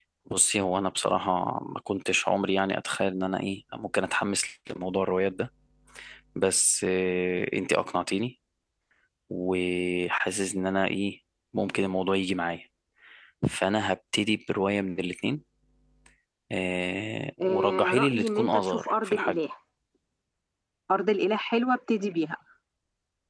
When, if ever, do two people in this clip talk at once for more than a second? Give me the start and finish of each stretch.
17.4-19.4

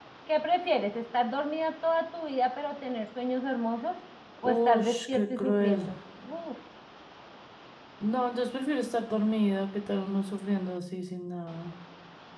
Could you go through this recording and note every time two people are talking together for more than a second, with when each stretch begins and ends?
4.4-5.9

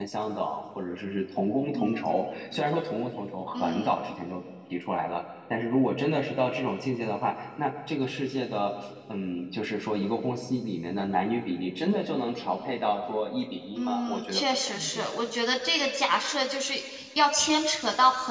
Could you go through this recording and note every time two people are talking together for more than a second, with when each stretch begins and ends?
13.8-15.1

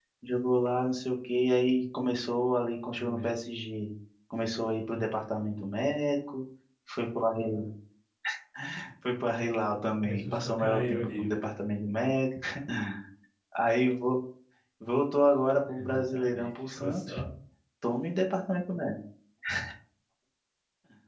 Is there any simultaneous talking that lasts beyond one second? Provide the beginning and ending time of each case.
10.0-11.3, 15.8-17.1

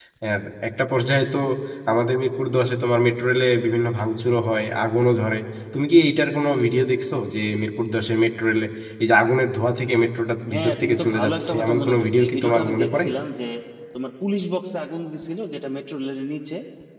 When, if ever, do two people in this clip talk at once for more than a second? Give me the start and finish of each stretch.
10.5-13.0

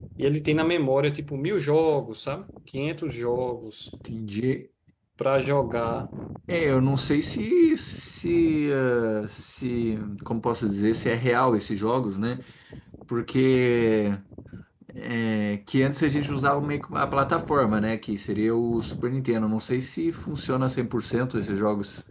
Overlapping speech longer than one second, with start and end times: none

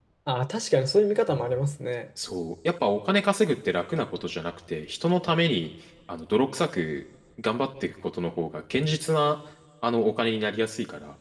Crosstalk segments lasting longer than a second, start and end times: none

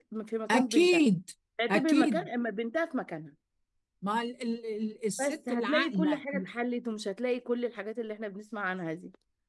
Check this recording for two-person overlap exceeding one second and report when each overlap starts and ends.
5.1-6.5

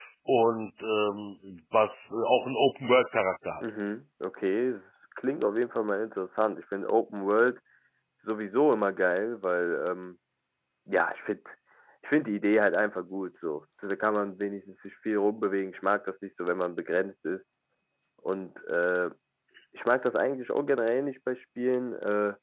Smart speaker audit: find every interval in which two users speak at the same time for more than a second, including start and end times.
none

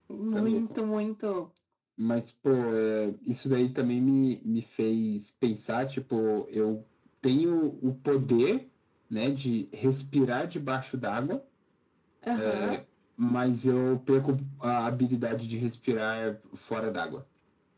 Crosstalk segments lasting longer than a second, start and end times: none

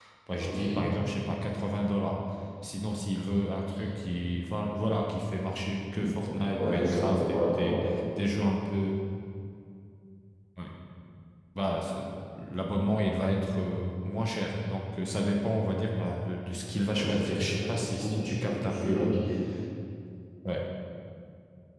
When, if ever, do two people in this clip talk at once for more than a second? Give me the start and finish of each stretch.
6.6-7.8, 17.0-19.2

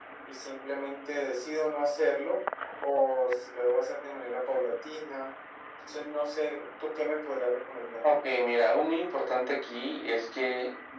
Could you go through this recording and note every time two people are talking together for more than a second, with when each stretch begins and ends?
none

